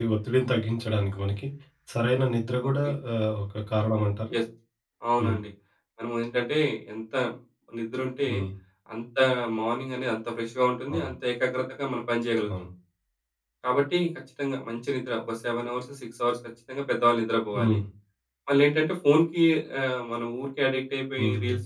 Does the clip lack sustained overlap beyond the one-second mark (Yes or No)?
Yes